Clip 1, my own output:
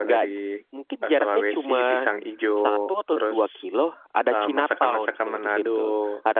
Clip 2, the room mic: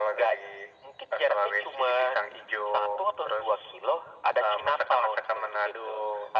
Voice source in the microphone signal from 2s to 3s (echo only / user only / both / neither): echo only